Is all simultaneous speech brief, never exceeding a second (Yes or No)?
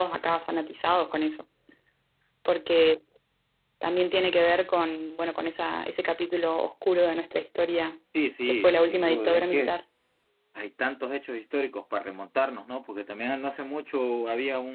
No